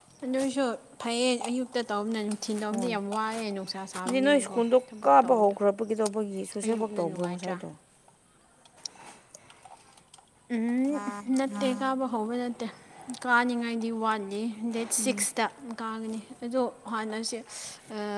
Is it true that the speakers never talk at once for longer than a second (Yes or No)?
No